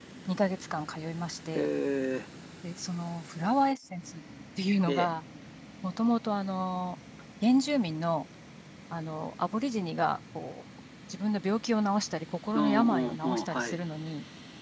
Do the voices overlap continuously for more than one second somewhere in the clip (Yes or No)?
Yes